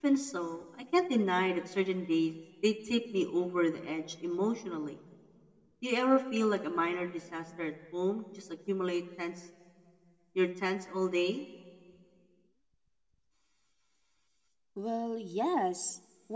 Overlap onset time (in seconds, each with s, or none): none